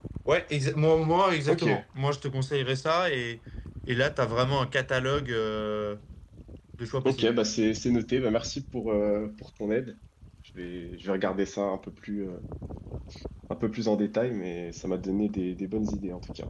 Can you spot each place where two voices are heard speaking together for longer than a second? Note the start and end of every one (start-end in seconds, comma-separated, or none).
none